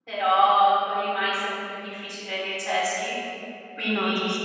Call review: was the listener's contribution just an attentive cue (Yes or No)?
Yes